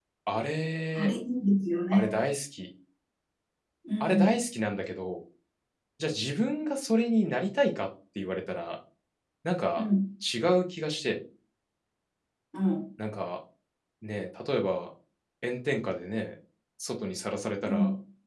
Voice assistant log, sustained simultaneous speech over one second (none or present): none